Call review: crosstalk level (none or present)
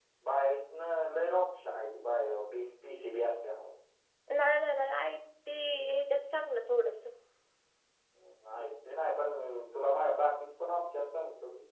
none